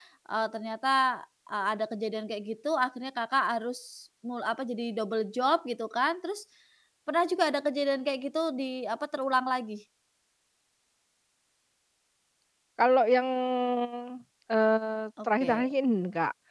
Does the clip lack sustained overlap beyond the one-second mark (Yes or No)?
Yes